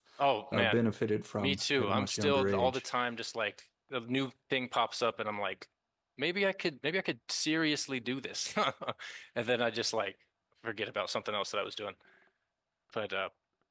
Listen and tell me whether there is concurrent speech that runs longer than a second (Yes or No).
Yes